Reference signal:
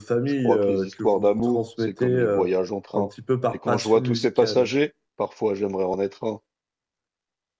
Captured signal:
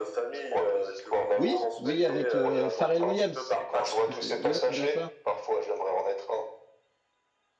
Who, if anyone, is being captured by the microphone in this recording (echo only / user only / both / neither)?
both